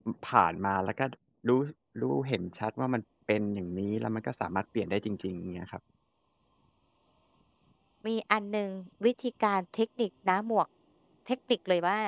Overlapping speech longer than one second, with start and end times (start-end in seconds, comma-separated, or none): none